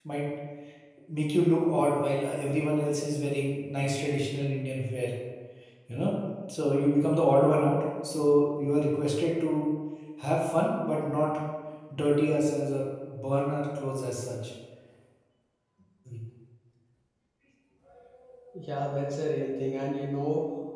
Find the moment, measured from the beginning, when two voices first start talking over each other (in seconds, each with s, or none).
none